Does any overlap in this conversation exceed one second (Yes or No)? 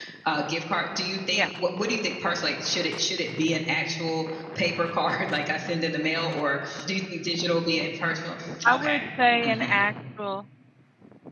No